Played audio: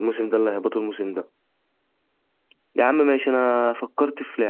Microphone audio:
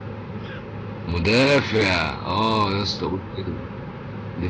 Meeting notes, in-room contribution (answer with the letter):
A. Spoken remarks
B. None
A